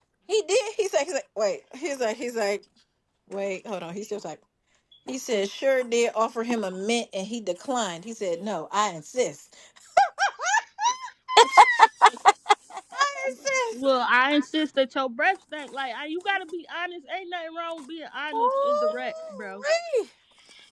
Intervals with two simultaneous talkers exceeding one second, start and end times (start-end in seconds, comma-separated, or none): 18.3-19.6